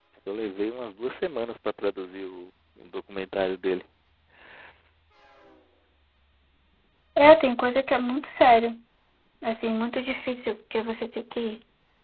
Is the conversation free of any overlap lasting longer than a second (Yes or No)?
Yes